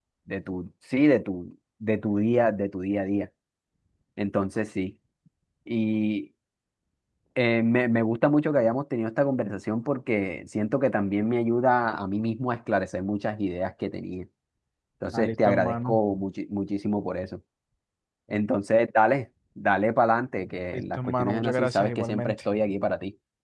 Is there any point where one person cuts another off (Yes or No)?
Yes